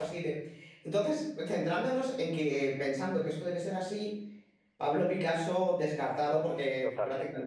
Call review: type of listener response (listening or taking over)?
listening